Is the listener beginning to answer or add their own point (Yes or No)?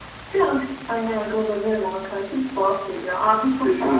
No